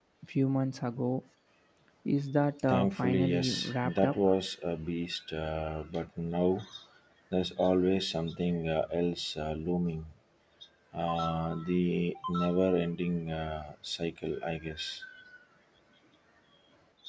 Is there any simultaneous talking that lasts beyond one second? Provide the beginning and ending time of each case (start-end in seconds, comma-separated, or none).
2.7-4.3